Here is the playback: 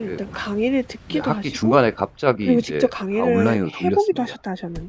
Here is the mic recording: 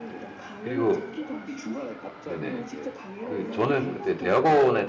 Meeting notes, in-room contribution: present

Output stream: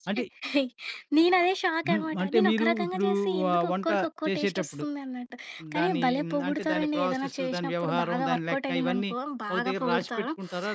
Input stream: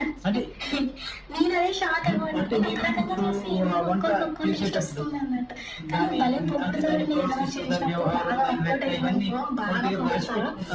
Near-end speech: none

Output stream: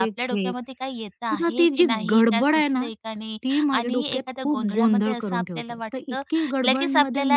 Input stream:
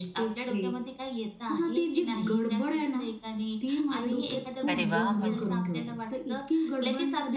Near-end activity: present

